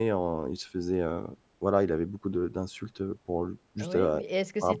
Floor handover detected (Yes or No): Yes